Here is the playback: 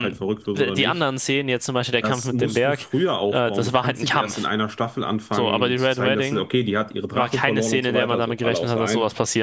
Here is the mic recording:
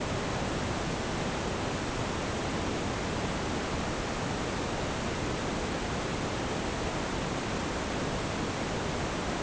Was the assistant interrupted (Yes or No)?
No